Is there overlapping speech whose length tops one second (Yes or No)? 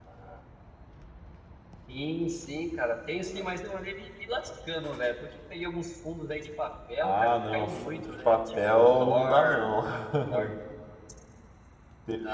Yes